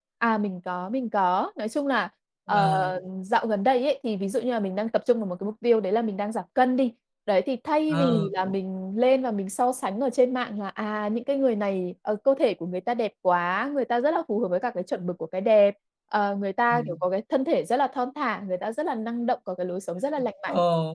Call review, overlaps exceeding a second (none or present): none